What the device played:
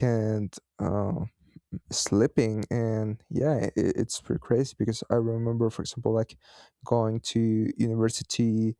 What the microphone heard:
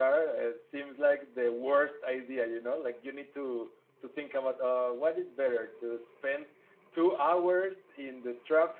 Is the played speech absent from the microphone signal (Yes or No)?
Yes